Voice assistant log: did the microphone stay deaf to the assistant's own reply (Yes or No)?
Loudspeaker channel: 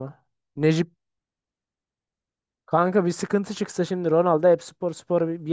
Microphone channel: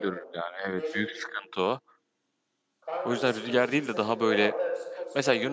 No